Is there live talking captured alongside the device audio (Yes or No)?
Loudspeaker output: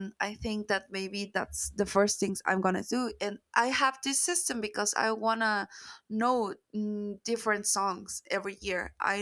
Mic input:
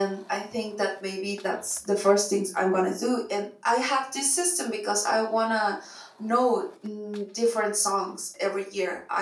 No